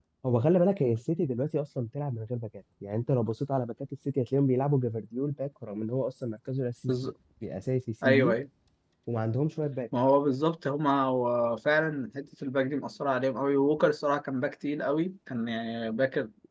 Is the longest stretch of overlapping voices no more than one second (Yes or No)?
Yes